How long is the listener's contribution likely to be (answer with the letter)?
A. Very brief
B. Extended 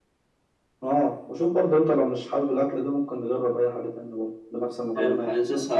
B